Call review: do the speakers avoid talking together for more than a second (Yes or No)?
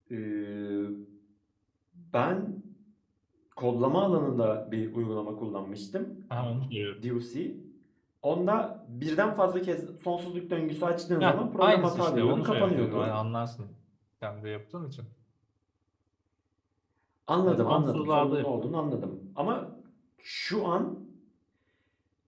No